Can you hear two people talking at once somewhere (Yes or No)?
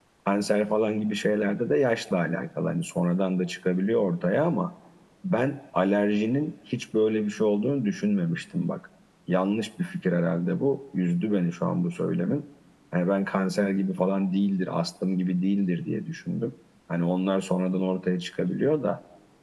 No